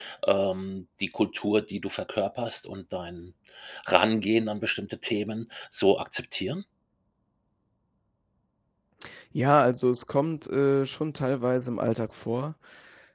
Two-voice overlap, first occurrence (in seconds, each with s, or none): none